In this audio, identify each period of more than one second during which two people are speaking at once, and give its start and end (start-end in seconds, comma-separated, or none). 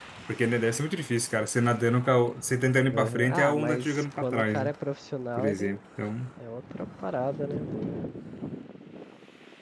2.9-4.7